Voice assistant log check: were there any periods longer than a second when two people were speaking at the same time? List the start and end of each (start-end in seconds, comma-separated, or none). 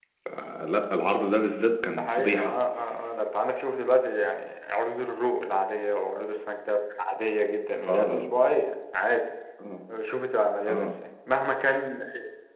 none